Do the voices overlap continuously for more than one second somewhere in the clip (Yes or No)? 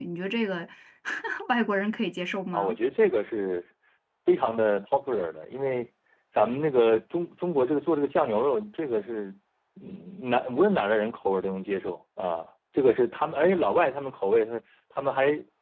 No